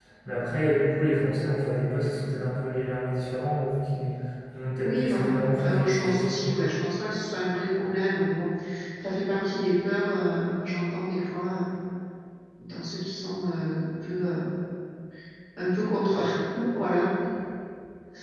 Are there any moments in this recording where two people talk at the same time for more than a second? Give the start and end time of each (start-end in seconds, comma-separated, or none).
4.8-6.4